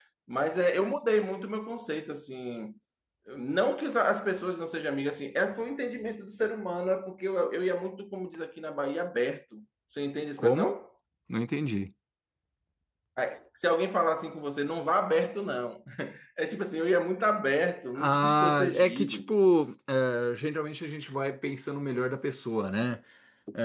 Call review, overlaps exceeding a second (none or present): present